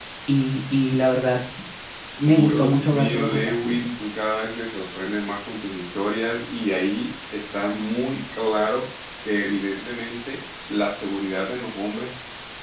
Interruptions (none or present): present